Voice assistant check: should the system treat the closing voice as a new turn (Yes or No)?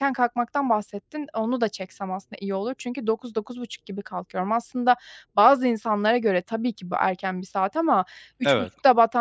No